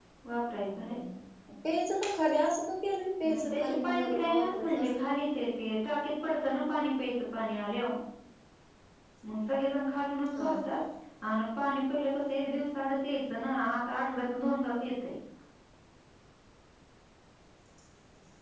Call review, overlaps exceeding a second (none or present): present